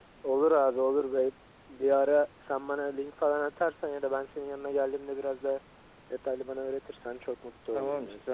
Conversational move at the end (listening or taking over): taking over